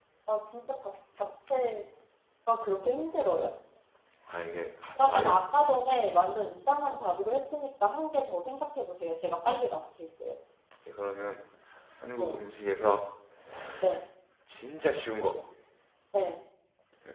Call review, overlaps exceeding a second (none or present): none